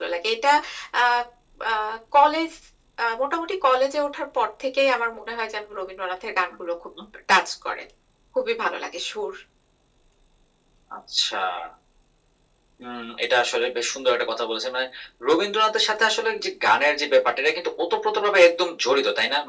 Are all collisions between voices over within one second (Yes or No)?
Yes